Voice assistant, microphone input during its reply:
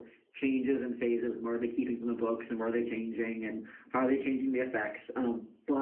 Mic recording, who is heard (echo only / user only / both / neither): echo only